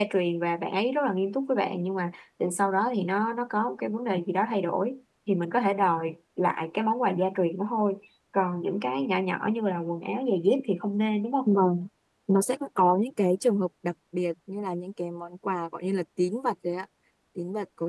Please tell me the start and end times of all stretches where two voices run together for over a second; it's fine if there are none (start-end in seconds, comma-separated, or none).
none